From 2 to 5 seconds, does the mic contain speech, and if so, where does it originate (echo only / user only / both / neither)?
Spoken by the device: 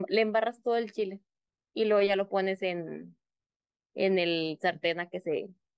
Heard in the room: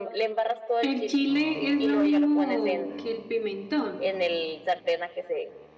both